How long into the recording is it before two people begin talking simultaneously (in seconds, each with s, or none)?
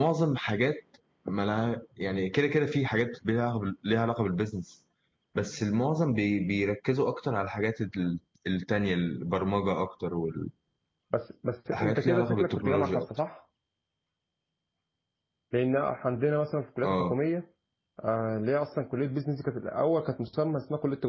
11.7 s